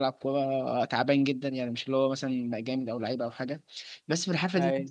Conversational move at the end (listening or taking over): listening